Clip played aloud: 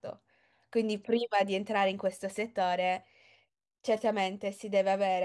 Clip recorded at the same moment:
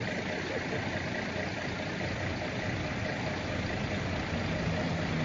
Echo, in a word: none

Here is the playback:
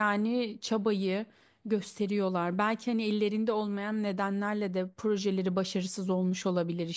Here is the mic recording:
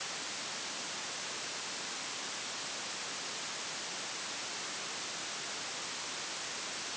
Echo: none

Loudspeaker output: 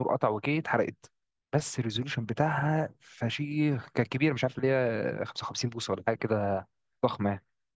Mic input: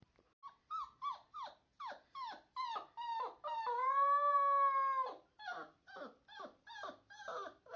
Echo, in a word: none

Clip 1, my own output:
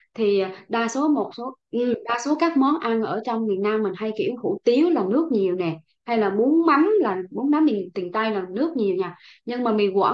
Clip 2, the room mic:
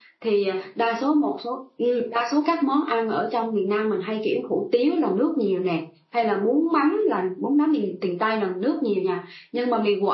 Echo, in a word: present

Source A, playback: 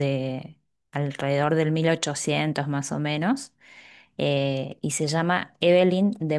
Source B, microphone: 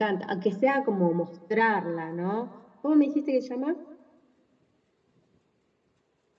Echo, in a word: none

